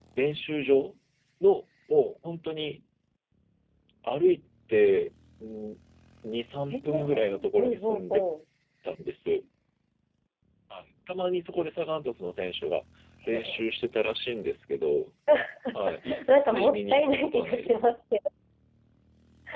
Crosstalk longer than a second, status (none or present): present